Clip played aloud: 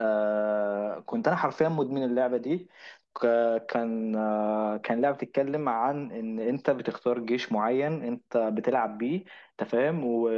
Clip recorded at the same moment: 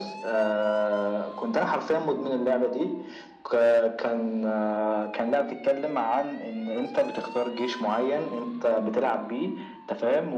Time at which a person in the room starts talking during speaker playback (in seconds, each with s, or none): none